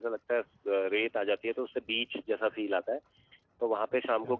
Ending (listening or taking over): listening